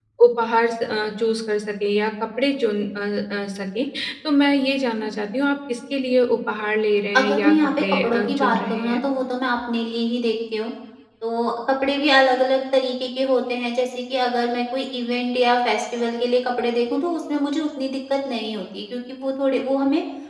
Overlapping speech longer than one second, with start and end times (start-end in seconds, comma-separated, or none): 7.2-9.0